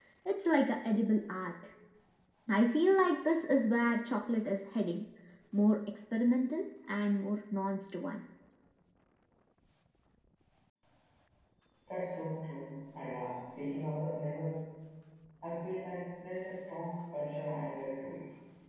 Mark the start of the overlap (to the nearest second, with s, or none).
none